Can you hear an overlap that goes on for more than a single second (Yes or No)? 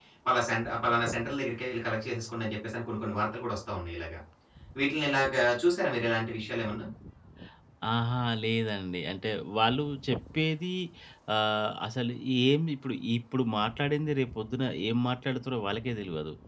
No